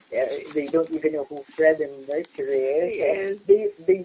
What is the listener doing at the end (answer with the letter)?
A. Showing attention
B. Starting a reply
A